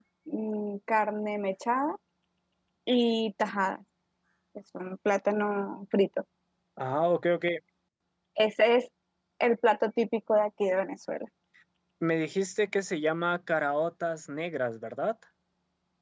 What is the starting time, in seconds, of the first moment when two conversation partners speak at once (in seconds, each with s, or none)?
none